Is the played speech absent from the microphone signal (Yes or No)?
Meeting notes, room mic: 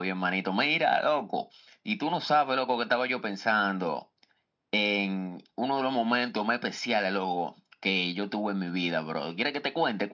No